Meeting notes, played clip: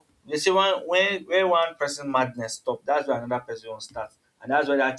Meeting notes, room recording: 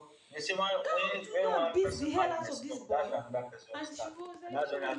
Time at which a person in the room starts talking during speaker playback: 0.8 s

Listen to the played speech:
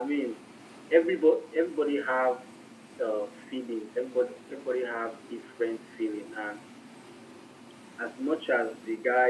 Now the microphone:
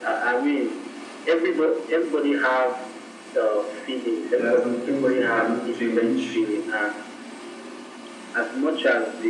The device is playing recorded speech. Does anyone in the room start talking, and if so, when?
4.3 s

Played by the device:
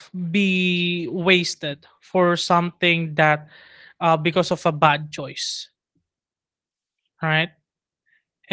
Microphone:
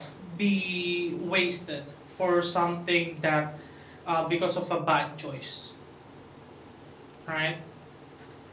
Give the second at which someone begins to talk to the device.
none

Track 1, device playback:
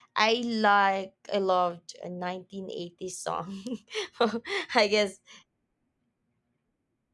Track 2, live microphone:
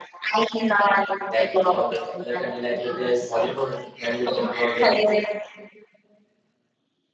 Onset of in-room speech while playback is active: 1.4 s

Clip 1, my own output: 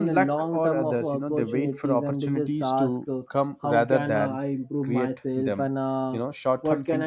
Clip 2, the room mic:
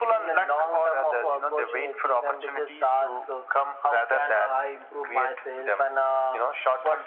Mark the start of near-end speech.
none

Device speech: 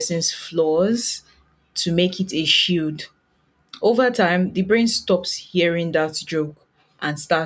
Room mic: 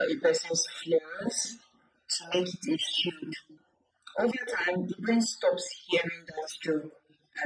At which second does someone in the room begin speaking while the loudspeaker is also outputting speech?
none

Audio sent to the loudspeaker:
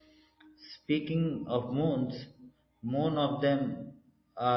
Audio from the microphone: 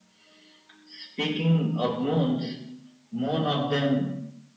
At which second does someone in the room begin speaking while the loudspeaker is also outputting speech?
none

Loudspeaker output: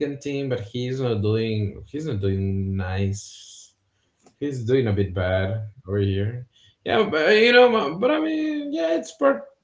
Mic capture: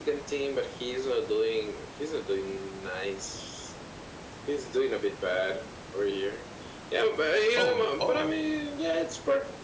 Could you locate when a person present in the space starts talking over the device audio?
7.5 s

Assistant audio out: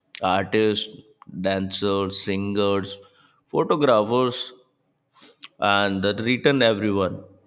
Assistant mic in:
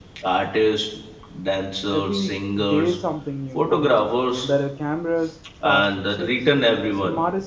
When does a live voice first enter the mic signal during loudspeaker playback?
1.9 s

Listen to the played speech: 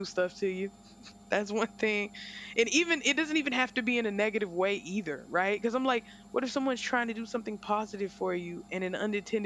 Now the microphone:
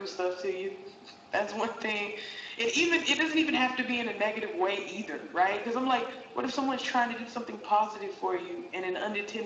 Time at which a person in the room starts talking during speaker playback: none

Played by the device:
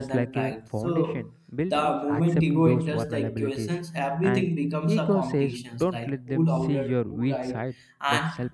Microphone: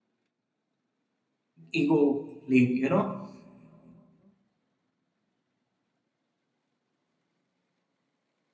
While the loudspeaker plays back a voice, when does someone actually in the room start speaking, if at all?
1.7 s

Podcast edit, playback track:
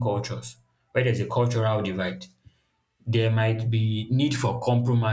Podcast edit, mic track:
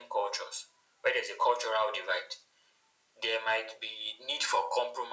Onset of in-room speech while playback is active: none

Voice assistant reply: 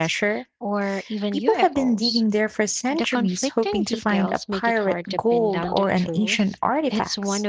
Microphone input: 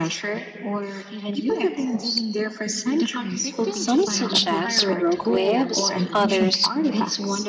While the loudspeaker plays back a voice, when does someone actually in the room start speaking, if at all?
3.7 s

